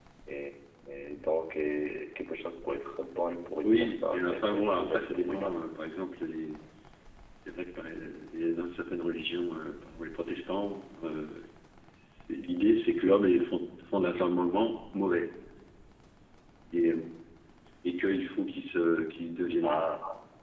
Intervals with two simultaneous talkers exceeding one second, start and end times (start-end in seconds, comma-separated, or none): 3.6-5.7